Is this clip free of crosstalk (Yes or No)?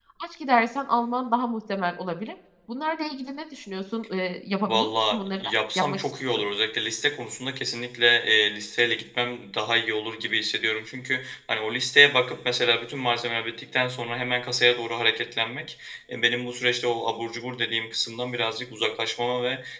No